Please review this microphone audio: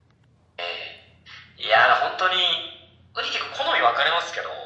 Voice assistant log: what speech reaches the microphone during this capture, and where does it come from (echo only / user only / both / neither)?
echo only